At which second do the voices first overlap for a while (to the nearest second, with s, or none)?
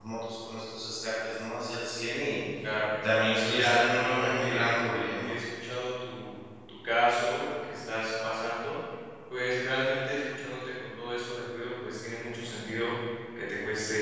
3 s